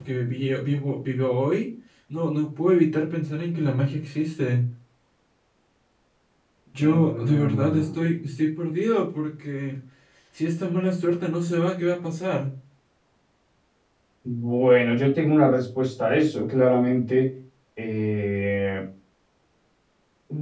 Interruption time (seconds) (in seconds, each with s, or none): 6.8 s